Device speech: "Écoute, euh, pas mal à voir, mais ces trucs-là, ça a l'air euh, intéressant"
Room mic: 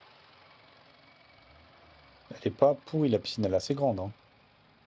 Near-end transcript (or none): Elle est pas pourrie, la piscine, elle est assez grande, hein.